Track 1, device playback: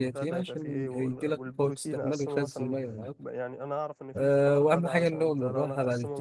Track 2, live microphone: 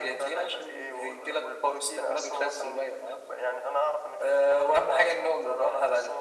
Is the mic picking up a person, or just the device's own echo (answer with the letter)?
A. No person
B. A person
A